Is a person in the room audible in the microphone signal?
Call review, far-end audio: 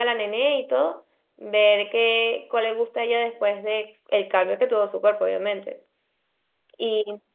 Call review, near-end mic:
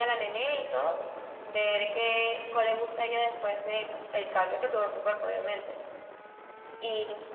No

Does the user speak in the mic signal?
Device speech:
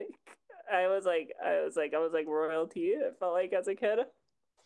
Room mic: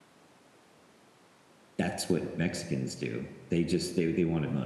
Yes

